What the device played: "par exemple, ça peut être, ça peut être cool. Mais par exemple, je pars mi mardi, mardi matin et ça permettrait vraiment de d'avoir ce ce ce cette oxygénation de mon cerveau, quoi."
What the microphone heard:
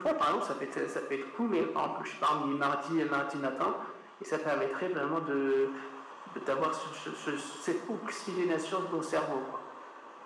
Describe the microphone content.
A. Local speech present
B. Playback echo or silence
B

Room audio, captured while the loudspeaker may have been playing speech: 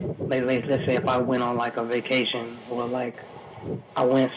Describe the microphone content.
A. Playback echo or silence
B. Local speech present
A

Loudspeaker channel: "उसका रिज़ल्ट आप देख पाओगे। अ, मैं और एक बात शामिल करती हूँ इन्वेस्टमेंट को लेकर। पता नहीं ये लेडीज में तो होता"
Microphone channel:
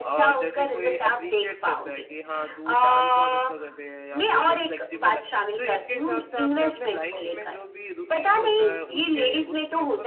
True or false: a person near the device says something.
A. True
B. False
A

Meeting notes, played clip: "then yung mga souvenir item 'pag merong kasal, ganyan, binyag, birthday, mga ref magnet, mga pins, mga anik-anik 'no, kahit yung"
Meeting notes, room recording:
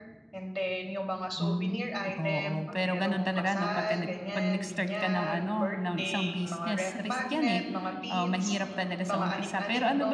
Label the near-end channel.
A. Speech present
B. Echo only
A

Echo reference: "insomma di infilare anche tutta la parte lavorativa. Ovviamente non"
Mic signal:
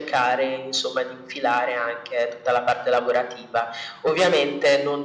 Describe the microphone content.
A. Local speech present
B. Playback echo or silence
B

